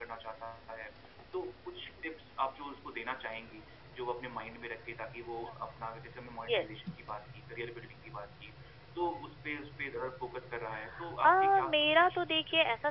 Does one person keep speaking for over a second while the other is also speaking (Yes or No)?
Yes